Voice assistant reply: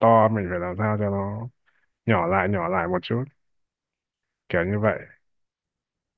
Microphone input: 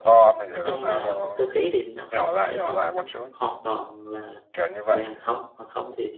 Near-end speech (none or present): present